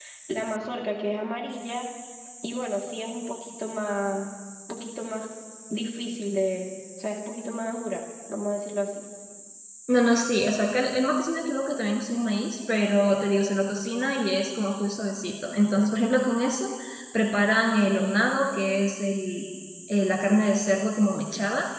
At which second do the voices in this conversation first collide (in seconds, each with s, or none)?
none